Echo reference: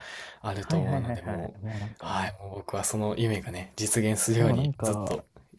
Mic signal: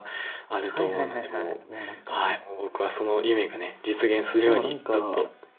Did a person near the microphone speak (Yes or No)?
No